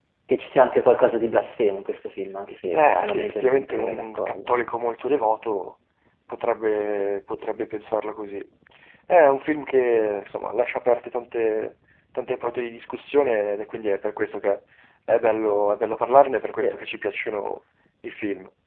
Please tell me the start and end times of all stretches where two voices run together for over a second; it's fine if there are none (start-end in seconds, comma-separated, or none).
2.7-4.4